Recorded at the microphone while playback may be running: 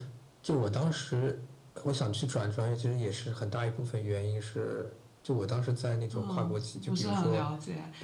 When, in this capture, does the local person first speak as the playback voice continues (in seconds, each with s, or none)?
6.1 s